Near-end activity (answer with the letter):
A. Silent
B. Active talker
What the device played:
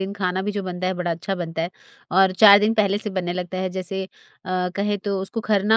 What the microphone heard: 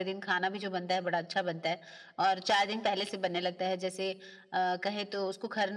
A